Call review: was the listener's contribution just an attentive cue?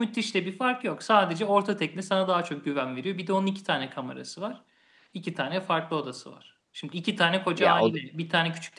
Yes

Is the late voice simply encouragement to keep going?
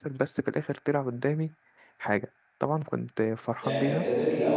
No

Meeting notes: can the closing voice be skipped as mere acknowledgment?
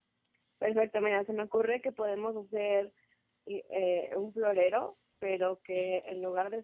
Yes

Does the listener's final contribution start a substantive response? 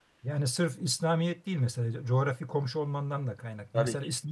No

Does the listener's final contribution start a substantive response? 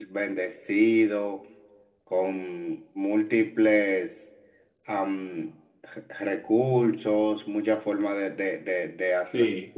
No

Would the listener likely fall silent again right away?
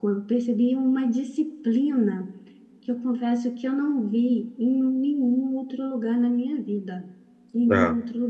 Yes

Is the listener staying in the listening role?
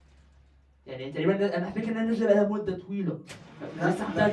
No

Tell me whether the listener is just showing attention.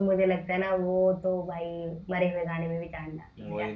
No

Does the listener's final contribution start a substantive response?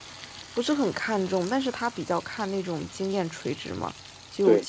No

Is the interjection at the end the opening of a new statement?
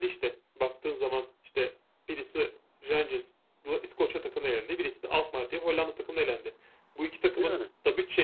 No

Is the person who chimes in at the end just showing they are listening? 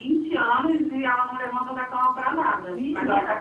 No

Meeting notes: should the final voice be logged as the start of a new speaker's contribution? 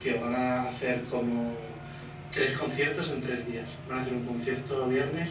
No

